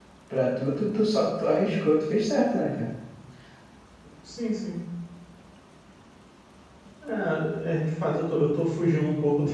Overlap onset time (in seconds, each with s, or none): none